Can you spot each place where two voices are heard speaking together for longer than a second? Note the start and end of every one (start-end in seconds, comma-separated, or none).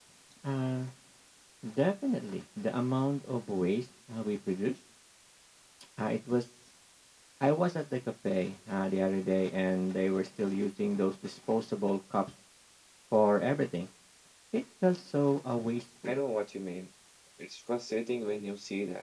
none